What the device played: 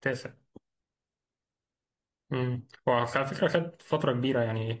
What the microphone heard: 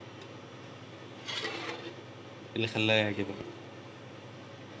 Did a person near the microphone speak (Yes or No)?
Yes